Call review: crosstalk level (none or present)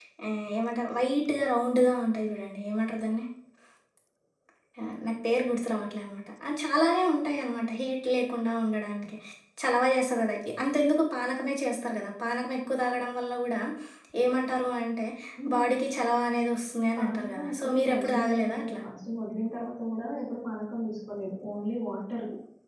present